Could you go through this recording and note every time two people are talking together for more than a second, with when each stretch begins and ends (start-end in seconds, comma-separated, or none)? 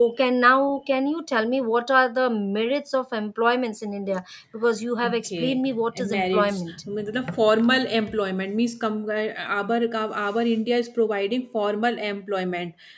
5.0-6.8